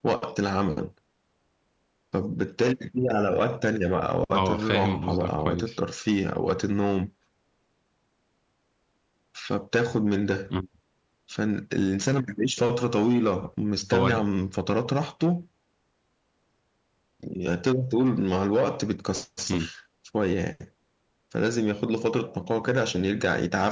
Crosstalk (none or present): present